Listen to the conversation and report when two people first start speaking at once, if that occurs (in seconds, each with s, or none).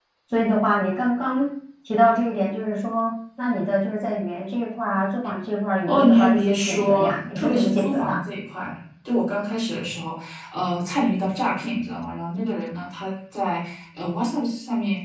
5.9 s